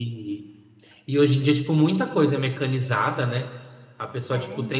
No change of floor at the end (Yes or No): Yes